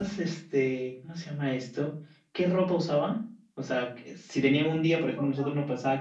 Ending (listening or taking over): listening